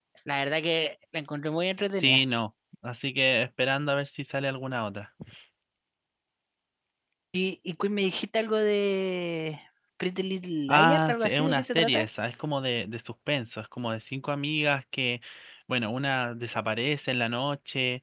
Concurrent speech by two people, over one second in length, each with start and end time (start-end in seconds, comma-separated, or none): 10.7-12.1